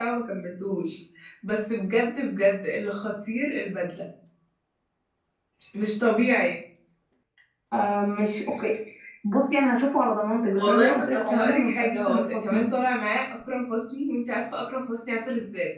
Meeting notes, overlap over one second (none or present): present